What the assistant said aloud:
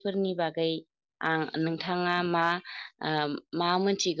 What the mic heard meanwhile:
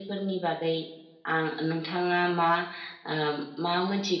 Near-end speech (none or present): none